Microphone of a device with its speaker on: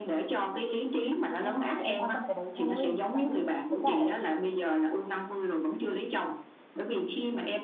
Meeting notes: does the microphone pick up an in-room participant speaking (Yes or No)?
Yes